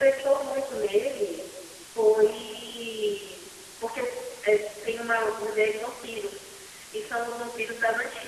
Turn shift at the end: No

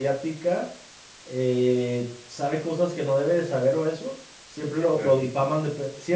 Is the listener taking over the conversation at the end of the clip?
No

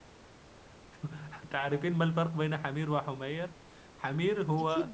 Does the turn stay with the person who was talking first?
Yes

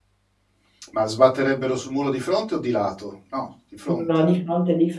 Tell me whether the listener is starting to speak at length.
Yes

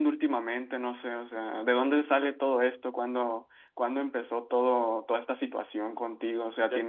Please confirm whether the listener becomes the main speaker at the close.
Yes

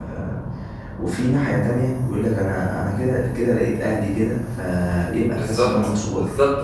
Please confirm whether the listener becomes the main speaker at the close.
Yes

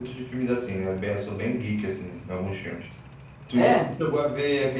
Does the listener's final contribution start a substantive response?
No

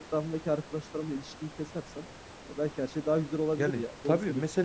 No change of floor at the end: No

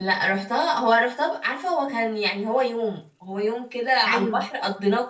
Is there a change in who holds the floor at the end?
No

